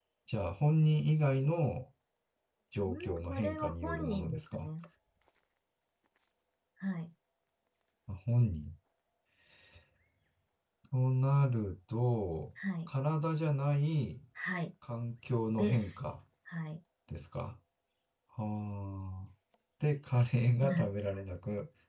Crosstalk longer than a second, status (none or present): present